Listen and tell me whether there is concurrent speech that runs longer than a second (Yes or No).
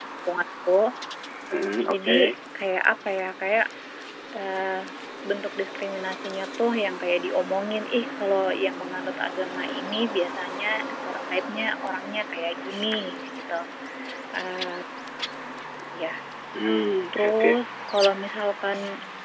No